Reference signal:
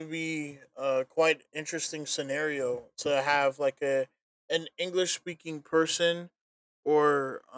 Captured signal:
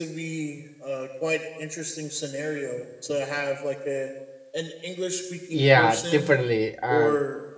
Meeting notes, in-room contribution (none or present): present